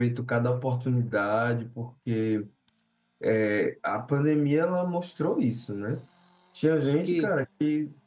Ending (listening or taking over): listening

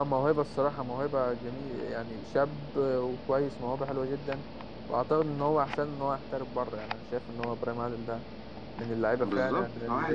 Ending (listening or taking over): taking over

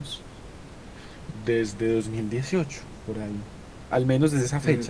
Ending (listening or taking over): listening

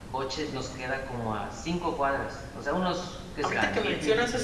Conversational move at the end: taking over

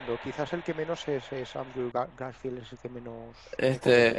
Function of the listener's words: taking over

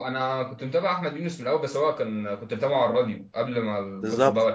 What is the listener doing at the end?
taking over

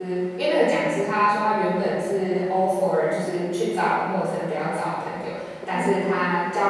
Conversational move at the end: listening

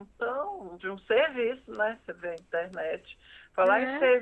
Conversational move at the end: listening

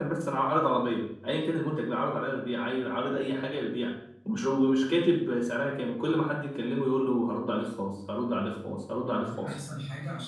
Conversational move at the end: taking over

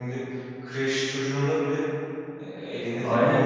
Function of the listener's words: taking over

